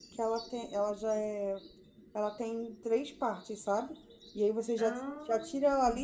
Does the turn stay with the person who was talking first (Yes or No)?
Yes